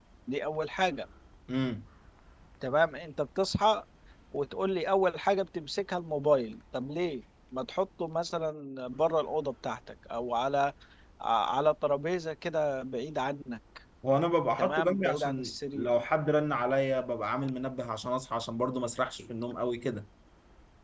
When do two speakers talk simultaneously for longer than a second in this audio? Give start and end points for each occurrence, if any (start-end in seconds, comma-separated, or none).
14.6-15.9